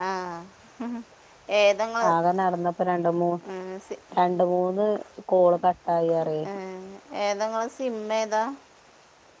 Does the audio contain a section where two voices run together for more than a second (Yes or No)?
No